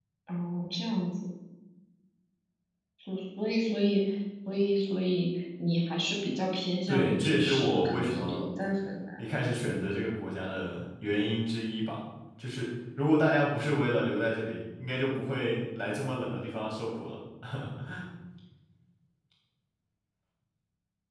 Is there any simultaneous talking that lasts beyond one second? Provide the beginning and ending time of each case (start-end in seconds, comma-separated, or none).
6.9-8.4